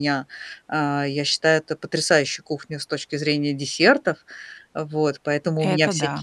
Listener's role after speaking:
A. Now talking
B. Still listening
B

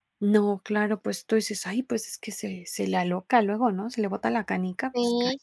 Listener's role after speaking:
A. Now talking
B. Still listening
A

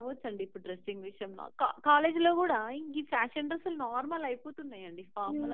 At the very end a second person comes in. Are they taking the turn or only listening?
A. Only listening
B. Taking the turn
B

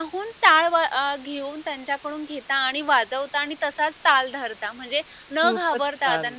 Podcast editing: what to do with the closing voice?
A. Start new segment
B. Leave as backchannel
B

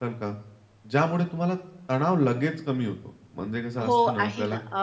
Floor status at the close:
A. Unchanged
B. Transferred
B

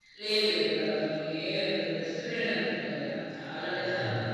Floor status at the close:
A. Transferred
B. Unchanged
B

